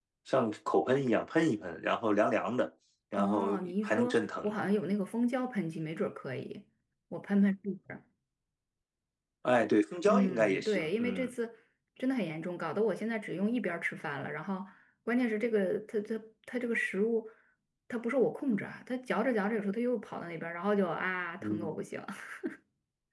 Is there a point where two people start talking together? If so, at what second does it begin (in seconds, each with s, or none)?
3.1 s